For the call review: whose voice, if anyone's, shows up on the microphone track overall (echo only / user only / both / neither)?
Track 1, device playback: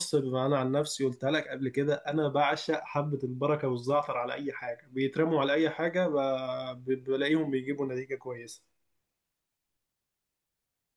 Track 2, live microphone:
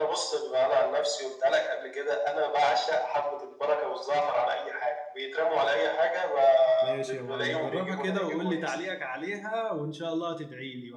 both